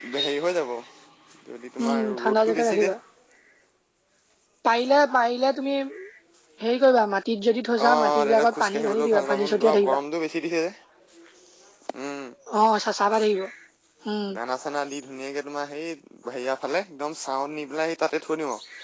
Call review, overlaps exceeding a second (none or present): present